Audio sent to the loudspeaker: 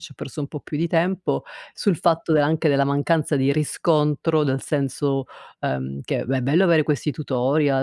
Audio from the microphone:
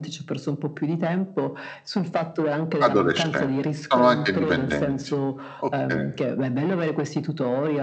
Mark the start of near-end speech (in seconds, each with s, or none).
2.8 s